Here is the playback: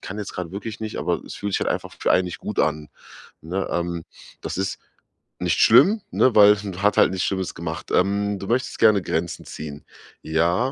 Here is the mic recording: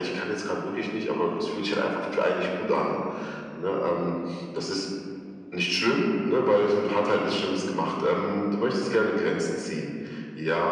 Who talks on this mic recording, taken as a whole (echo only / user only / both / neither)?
echo only